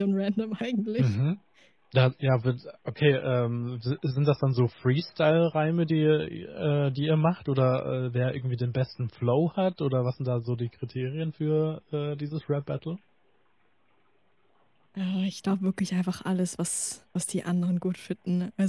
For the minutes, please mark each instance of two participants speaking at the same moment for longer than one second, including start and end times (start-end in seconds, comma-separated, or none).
none